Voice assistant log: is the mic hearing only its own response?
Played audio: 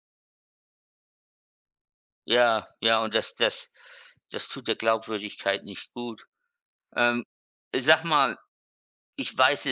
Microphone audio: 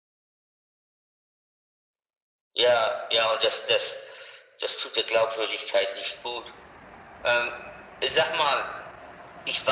Yes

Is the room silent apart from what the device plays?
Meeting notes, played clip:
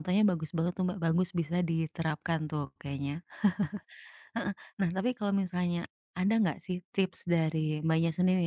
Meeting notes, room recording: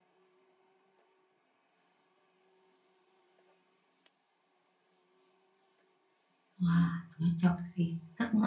No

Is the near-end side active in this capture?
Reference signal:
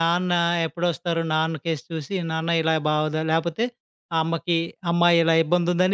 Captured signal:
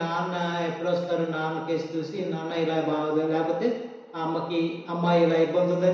No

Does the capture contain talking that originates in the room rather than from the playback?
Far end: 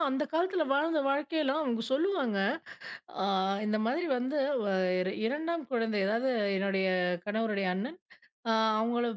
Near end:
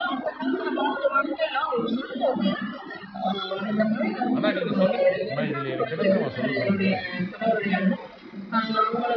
Yes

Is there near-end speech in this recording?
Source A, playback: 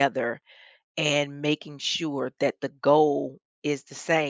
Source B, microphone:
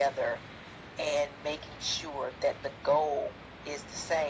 No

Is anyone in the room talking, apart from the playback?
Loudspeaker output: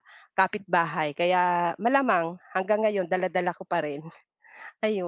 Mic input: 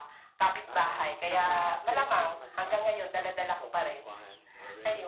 Yes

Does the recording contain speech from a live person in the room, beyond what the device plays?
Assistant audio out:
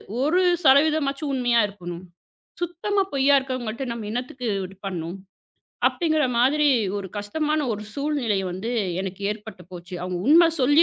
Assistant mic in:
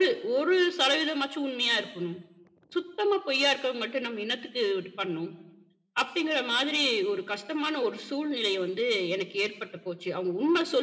No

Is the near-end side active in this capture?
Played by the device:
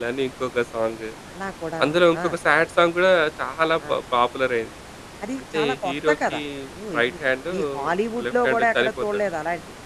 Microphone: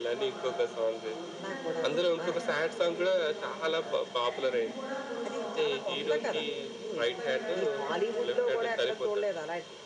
Yes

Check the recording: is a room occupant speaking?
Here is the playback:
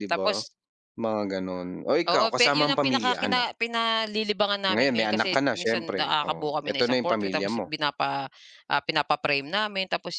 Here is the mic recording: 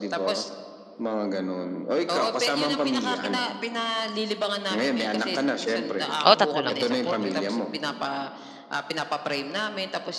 Yes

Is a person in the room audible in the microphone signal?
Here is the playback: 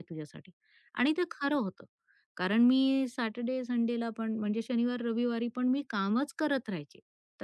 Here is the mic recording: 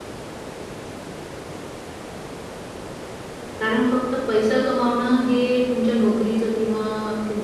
Yes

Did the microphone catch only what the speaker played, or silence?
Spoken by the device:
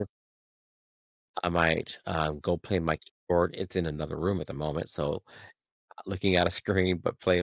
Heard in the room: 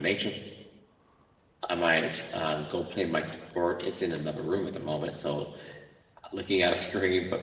Yes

